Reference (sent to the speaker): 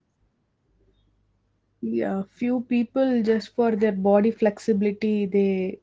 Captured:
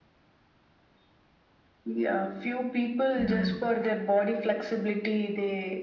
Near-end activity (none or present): present